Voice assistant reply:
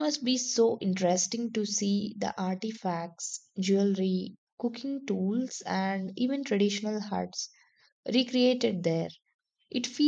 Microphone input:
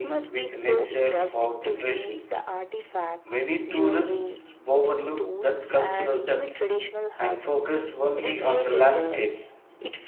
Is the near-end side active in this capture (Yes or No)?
Yes